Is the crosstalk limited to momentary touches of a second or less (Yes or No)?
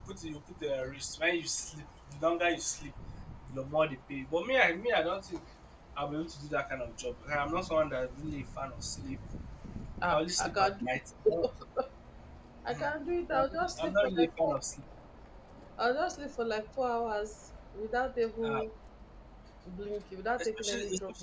No